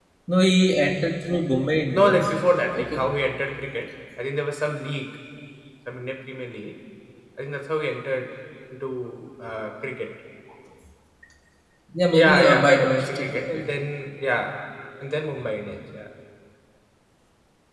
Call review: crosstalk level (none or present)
present